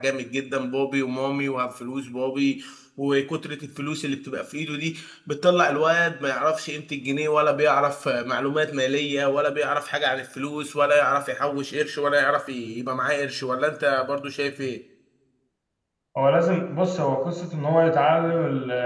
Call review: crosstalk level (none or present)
none